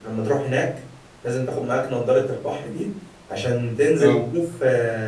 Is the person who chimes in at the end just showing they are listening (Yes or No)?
Yes